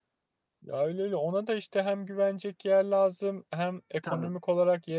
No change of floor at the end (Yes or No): Yes